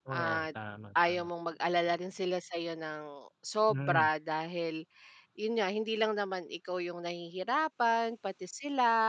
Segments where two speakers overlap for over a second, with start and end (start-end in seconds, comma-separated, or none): none